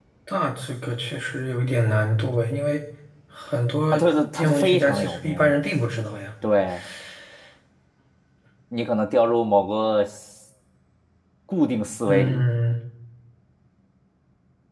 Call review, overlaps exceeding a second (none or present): present